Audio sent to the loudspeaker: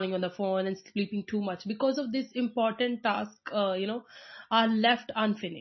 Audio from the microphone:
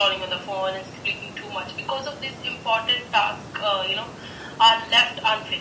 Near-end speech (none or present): none